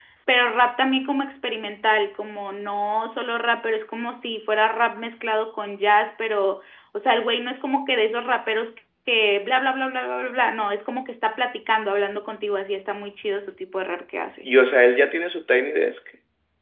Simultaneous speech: No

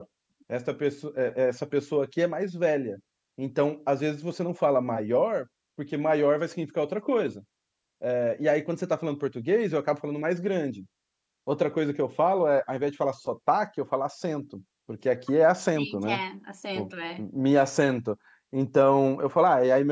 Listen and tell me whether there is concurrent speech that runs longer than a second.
No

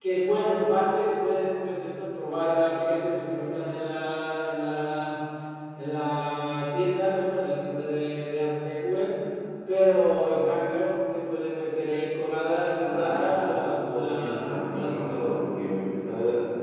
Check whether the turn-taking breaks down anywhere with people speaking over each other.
Yes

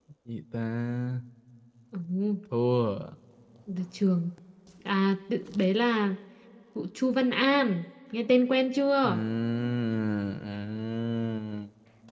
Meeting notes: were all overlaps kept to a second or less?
Yes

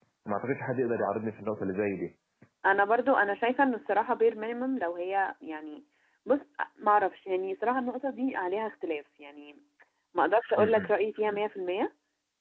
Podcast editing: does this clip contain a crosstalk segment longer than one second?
No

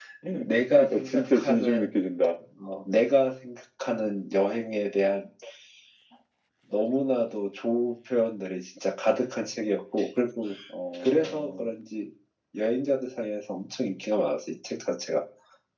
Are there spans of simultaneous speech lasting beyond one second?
Yes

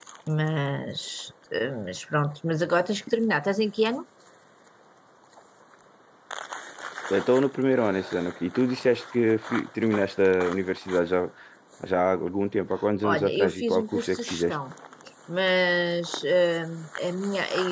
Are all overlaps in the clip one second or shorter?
No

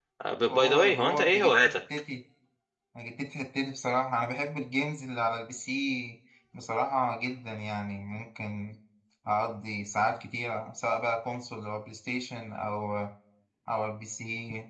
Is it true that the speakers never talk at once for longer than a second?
No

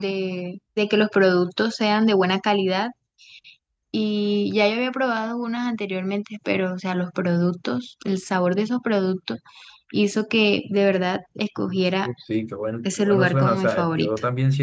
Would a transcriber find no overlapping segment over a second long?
No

